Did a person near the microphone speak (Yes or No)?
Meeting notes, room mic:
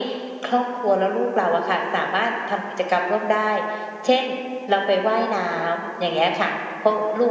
No